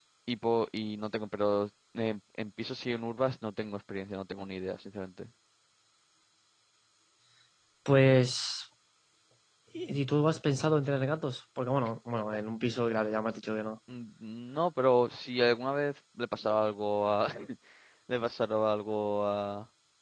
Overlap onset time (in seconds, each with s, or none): none